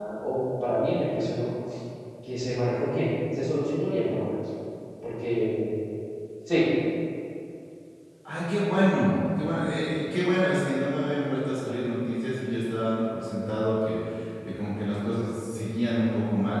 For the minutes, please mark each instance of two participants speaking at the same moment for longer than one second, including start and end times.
none

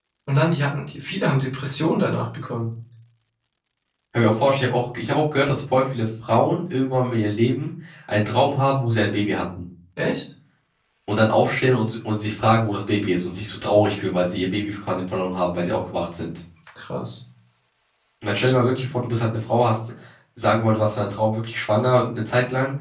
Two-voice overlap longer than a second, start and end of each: none

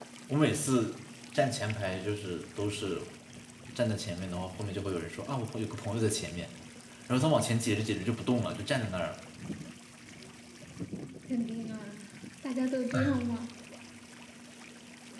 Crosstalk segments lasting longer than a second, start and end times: none

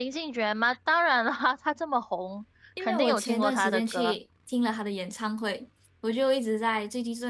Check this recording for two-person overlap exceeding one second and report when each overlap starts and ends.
2.8-4.2

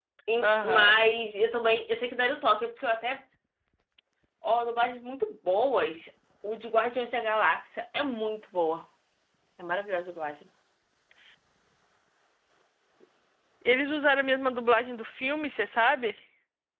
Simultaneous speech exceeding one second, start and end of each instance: none

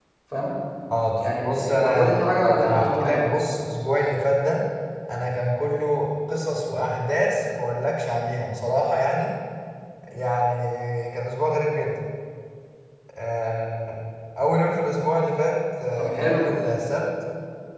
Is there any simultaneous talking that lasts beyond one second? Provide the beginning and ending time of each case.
1.4-3.3

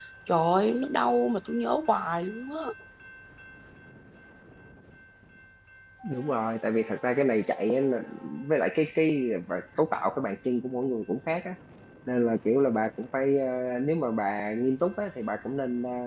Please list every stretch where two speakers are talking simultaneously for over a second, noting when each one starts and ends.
none

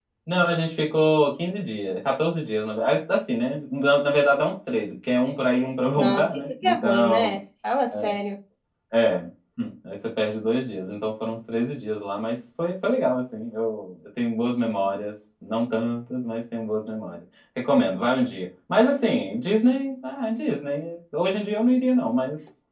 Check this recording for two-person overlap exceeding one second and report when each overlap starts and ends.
6.0-7.4

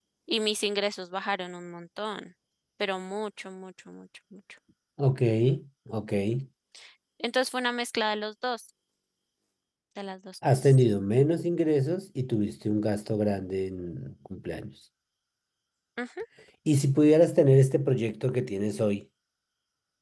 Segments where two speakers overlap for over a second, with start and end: none

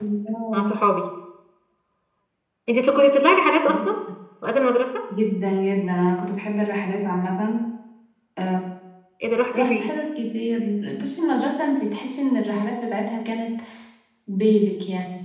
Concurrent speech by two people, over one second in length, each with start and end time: none

